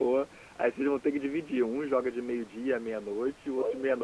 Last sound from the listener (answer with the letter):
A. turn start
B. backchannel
A